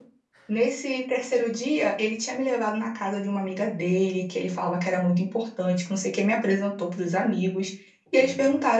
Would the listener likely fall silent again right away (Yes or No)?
Yes